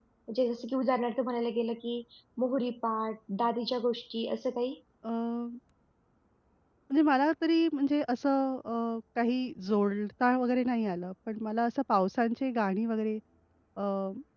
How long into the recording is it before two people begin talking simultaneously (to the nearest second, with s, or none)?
none